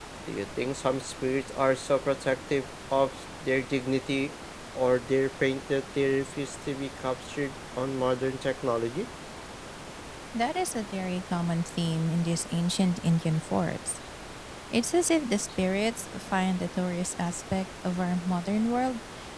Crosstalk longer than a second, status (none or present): none